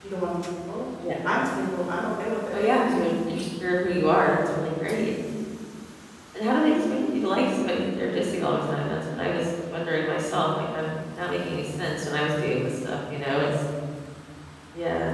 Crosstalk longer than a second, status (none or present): none